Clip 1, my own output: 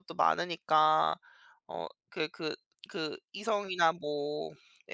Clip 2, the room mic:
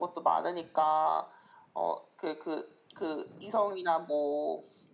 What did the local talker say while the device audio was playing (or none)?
none